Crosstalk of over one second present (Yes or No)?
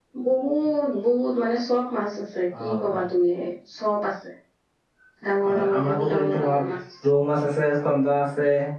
Yes